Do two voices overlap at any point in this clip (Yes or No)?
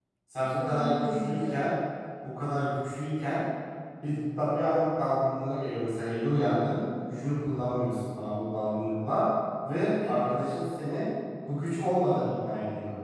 Yes